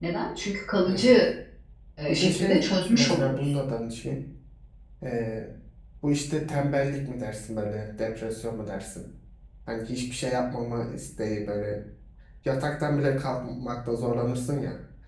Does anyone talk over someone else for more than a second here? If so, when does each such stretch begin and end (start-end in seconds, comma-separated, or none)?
2.1-3.6